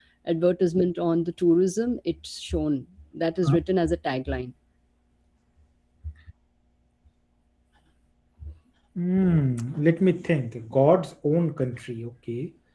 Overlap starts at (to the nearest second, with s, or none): none